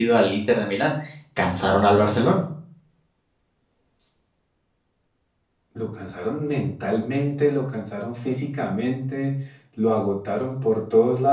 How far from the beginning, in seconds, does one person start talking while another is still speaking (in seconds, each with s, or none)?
none